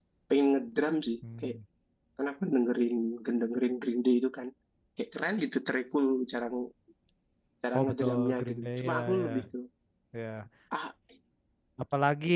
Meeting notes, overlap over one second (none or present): present